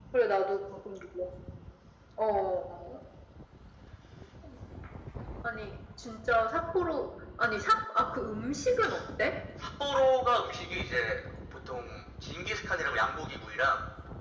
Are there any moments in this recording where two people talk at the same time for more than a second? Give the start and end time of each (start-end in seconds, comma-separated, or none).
none